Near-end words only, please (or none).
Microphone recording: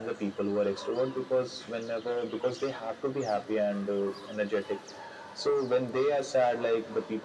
none